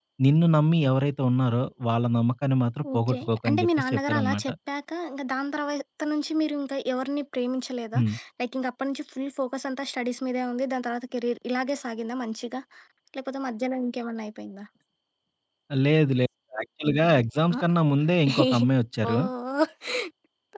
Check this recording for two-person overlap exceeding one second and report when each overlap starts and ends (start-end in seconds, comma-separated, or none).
2.9-4.5